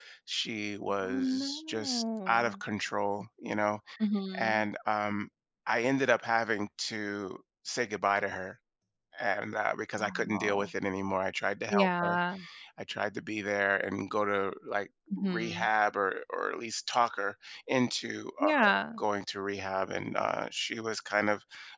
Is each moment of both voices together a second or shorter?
No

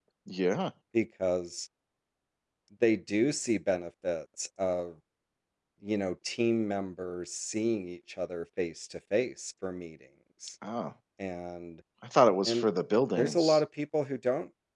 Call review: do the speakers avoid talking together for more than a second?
Yes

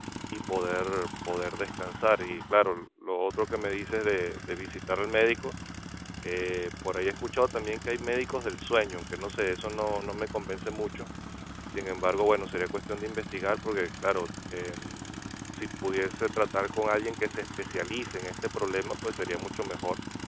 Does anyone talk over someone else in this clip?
No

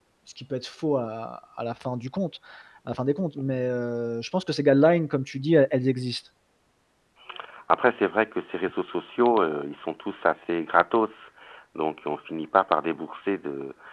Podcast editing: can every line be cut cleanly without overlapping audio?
Yes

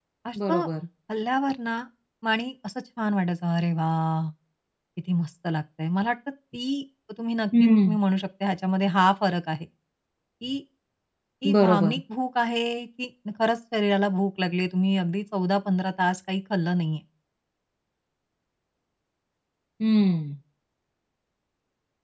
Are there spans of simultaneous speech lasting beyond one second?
No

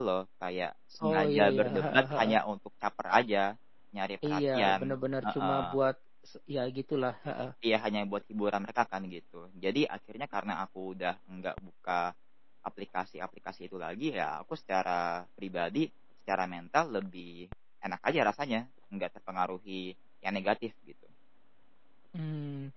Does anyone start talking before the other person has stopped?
Yes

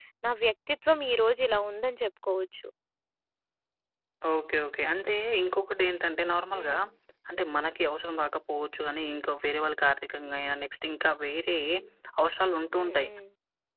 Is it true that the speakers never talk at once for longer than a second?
Yes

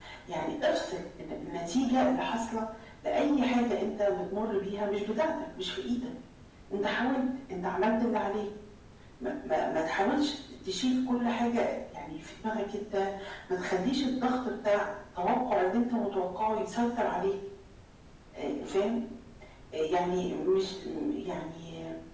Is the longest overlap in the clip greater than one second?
No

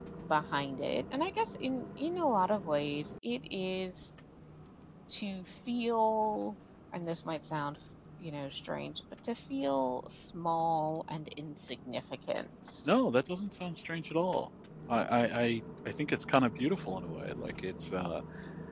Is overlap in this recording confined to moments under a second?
Yes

